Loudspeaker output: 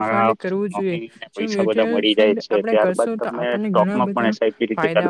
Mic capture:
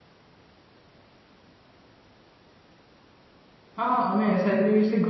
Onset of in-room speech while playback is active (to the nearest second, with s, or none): 4 s